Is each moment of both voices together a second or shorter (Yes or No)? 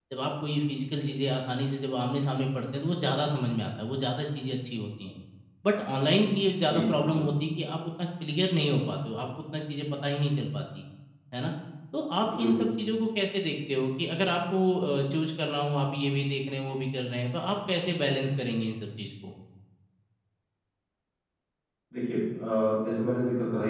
Yes